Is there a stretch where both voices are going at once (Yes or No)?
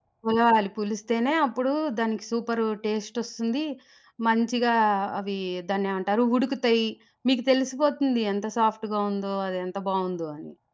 No